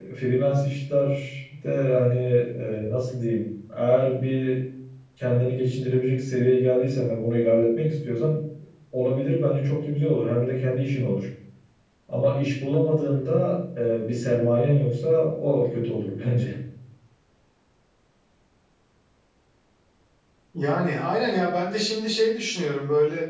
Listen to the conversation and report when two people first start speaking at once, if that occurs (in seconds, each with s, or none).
none